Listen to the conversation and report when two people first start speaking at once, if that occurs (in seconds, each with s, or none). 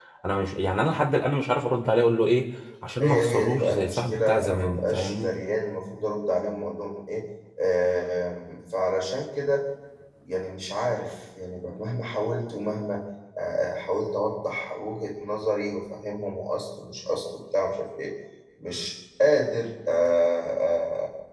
3.0 s